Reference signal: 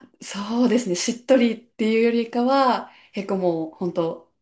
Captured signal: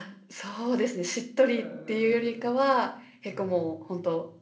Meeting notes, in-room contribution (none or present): present